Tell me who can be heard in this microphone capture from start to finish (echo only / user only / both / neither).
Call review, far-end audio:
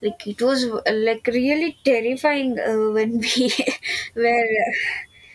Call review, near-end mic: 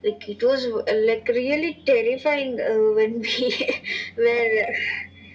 echo only